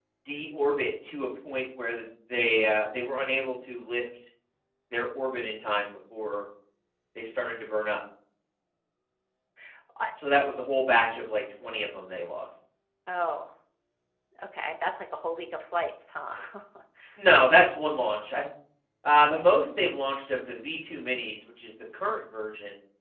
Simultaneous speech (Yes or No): No